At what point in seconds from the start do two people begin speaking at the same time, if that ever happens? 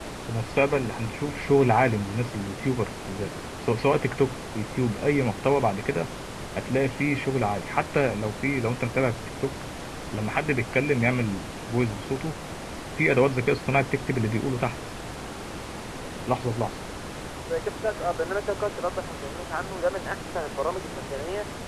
none

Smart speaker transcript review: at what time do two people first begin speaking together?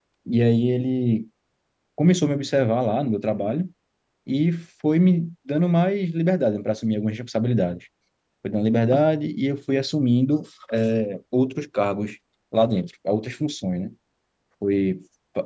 none

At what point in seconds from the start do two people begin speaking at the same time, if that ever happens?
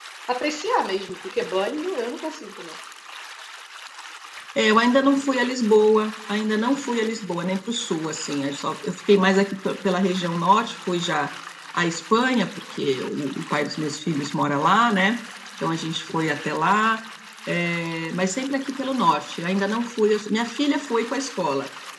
none

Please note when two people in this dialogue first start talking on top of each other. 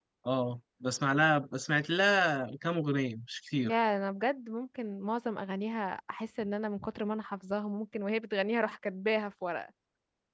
none

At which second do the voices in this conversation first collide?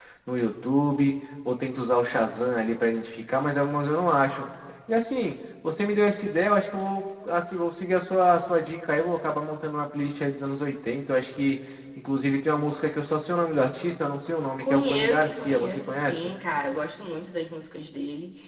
14.6 s

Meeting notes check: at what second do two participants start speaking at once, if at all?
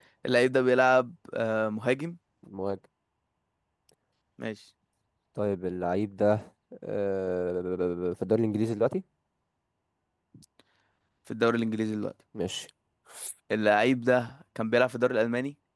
none

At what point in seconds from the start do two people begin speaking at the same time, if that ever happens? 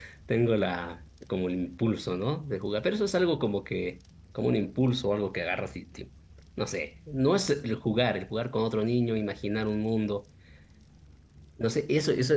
none

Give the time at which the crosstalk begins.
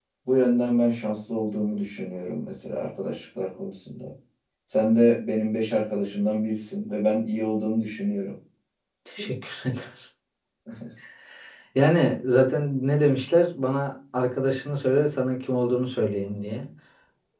none

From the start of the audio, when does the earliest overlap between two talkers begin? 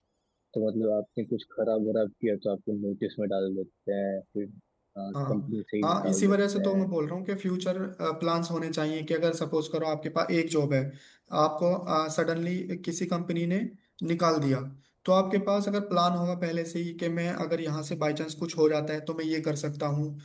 5.1 s

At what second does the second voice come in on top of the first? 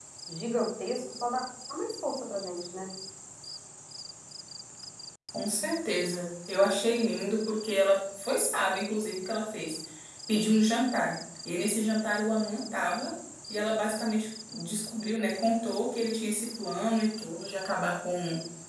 none

